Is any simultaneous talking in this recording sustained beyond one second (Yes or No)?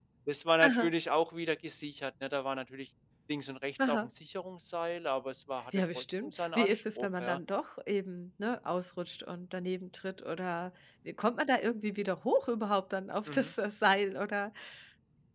Yes